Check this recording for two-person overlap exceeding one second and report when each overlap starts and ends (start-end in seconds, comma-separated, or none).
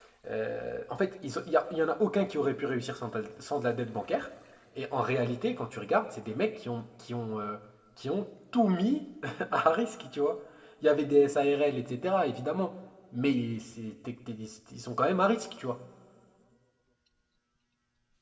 none